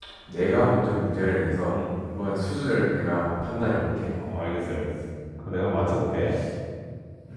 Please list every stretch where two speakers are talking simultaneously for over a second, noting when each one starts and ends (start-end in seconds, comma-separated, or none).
none